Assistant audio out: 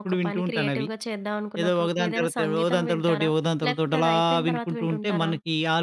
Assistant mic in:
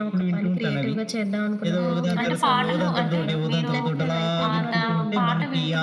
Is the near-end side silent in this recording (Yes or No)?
No